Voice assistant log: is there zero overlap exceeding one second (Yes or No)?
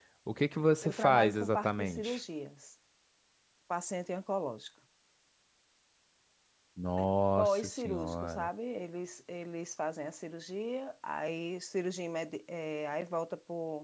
No